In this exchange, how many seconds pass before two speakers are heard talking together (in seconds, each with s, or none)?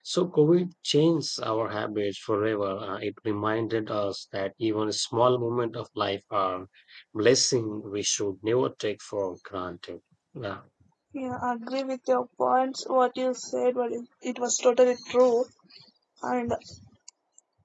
none